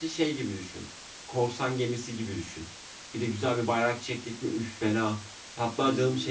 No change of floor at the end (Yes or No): Yes